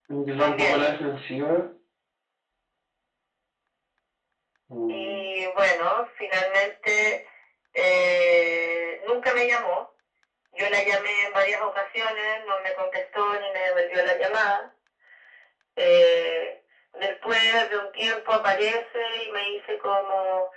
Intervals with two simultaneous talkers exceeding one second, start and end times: none

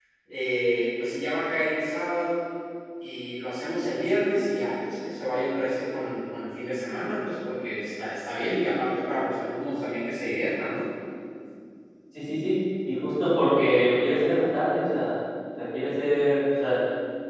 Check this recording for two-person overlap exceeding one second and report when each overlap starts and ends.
none

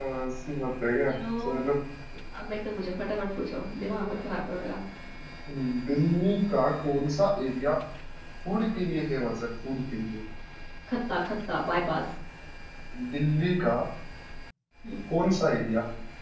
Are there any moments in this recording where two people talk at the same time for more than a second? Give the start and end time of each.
none

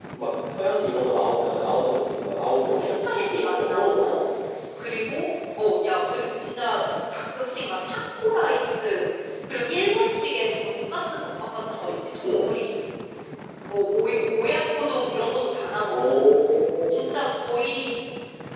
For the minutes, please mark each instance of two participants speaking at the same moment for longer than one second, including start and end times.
2.7-4.2

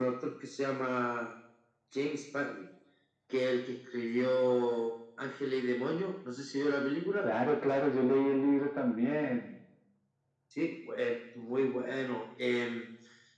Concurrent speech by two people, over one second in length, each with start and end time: none

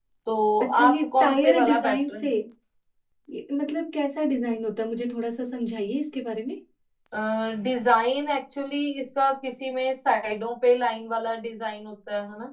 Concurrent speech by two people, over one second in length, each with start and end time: 0.6-2.3

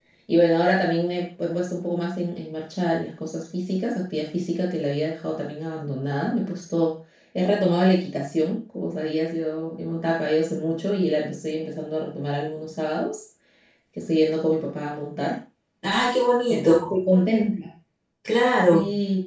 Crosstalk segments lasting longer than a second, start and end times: none

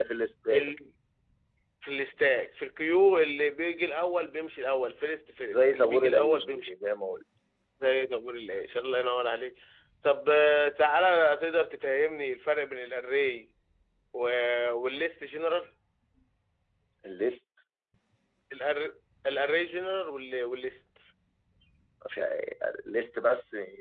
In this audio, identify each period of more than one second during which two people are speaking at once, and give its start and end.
5.5-6.7

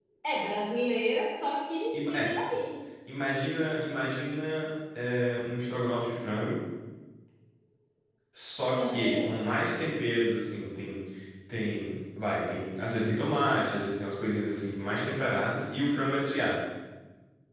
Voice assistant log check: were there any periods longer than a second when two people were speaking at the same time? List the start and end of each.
none

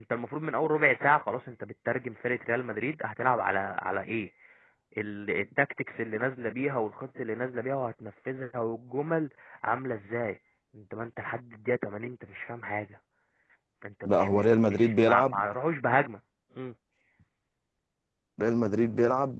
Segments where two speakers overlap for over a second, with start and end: 14.0-15.4

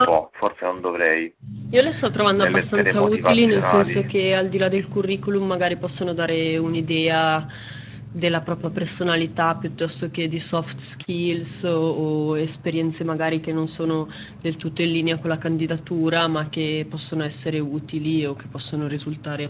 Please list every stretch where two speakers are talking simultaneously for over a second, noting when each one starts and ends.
2.4-4.0

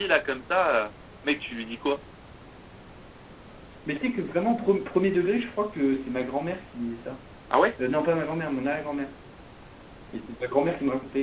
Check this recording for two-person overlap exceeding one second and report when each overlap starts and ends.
none

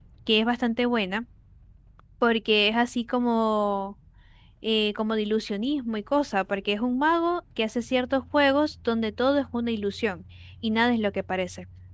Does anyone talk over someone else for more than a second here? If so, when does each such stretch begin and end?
none

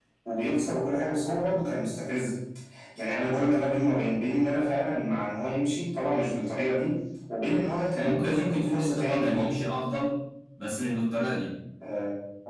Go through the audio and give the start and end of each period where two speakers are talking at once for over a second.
7.9-9.5

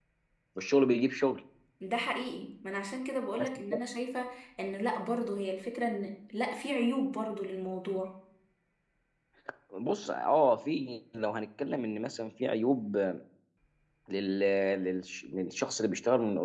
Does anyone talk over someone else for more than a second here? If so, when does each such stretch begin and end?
none

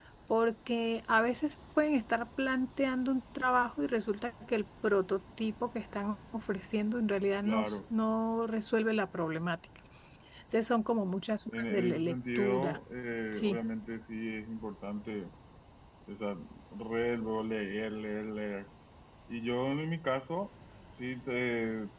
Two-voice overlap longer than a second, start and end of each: 11.5-12.8

